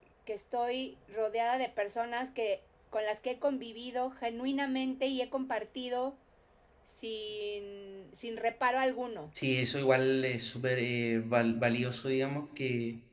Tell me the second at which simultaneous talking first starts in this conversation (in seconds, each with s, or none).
none